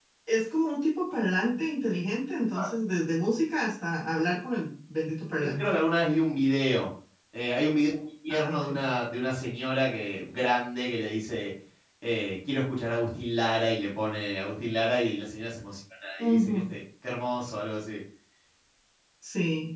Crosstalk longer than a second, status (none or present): none